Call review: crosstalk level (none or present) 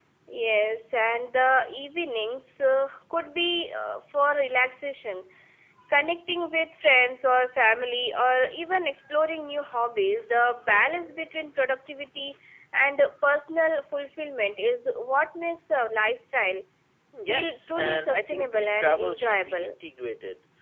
present